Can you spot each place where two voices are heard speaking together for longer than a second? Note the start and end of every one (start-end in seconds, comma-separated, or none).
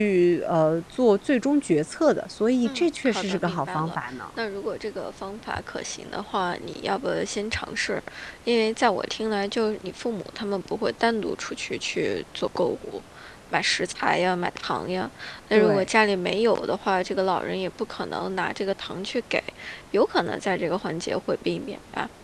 2.6-4.0